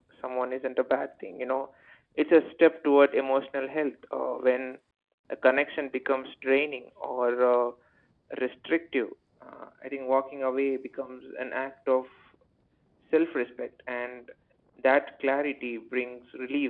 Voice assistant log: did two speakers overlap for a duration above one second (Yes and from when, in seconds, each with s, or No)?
No